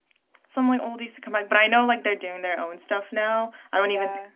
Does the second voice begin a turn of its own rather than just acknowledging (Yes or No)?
No